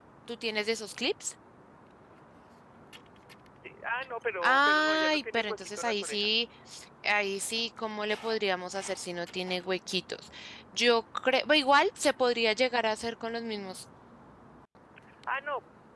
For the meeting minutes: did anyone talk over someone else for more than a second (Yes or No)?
Yes